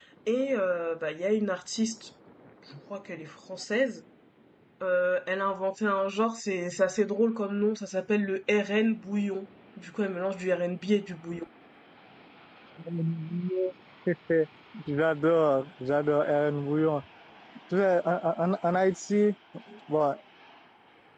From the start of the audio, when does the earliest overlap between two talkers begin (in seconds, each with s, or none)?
none